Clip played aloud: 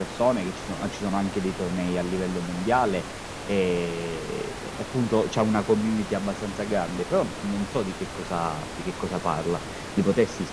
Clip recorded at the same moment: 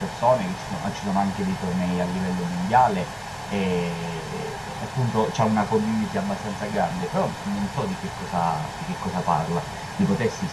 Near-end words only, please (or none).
none